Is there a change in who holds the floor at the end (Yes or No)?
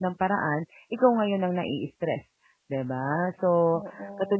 No